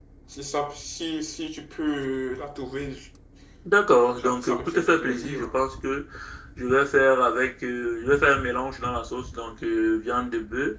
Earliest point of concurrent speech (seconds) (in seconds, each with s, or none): 4.2 s